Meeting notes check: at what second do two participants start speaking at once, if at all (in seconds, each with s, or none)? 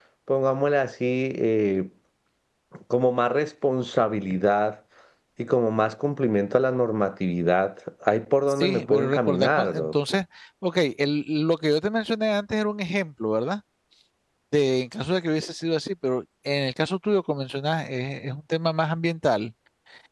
8.6 s